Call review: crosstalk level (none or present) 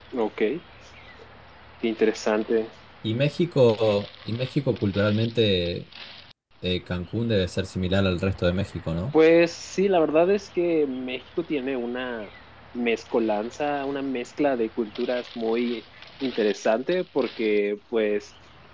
none